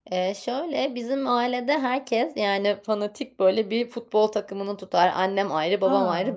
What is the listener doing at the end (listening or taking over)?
listening